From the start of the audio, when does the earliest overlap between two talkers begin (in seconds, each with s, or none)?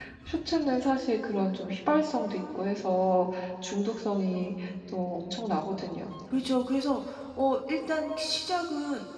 none